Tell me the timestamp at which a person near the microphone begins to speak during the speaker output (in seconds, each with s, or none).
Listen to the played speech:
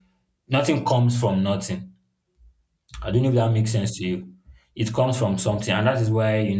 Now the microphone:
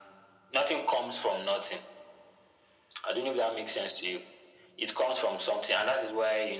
none